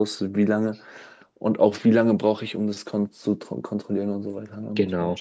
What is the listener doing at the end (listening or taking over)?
taking over